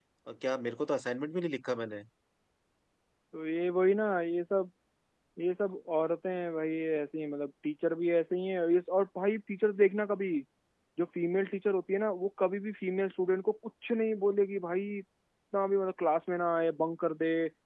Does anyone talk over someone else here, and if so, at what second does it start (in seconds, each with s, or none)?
none